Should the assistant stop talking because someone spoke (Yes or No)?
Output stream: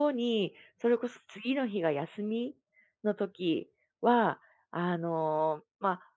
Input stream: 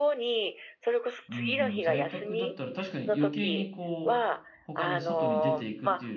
Yes